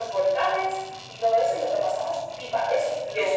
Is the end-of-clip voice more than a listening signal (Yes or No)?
Yes